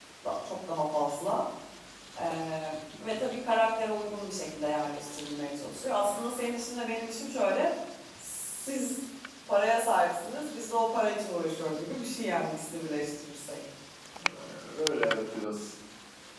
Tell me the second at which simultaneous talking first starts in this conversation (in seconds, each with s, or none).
none